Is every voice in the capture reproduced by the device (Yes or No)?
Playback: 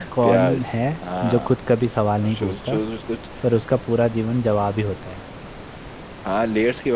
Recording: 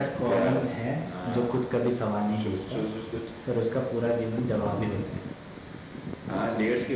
Yes